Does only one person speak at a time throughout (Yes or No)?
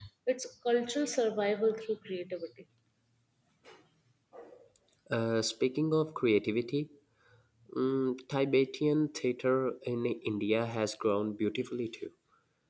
Yes